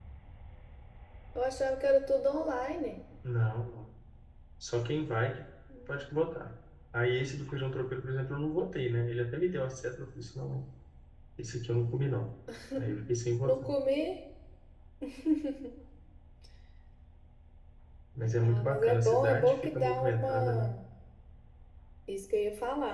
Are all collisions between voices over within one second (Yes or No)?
No